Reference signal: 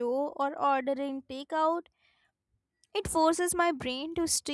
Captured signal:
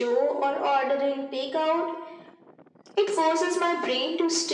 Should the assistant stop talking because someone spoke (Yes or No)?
No